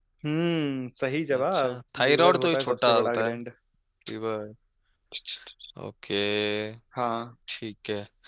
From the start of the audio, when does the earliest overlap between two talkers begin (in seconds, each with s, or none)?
1.3 s